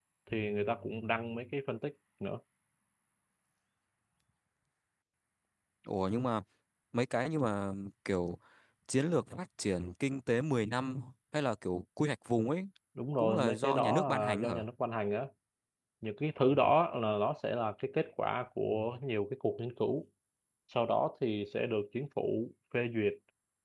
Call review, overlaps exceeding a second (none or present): present